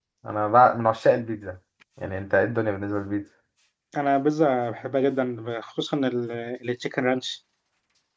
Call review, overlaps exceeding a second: none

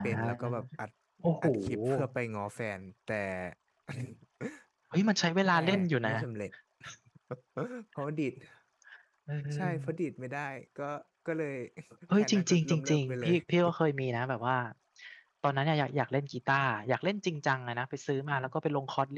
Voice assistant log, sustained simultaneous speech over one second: present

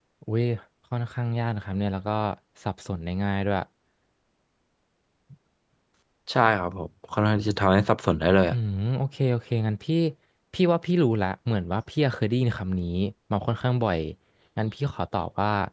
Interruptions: none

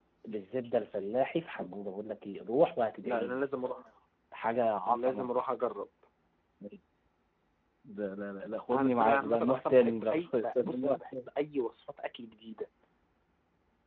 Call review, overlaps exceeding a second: present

